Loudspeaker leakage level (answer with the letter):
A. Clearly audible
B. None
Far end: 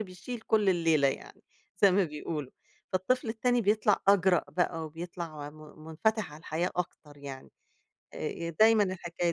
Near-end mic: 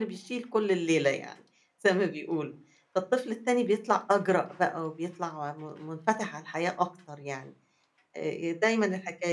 A